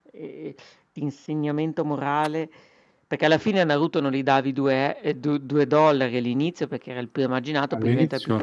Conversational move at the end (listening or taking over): taking over